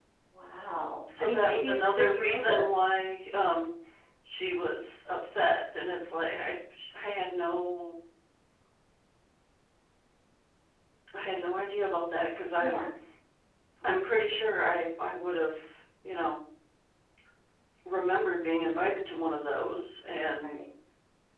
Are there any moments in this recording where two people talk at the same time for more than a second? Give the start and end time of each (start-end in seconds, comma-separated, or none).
1.2-2.7